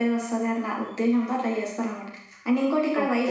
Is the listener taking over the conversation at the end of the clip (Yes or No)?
No